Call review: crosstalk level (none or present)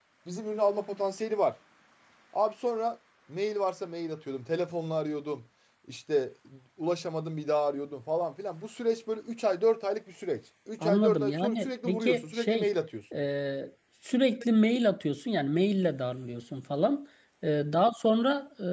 present